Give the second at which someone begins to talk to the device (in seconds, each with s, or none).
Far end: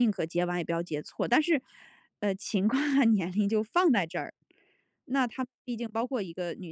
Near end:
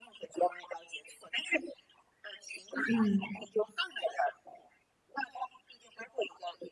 2.9 s